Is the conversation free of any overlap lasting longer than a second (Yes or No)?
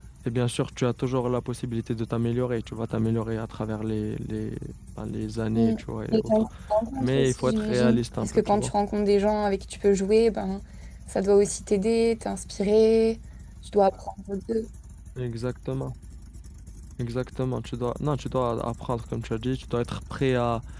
No